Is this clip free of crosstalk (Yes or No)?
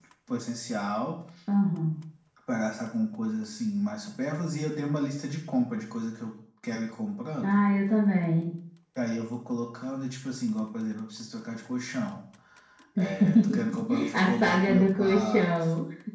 No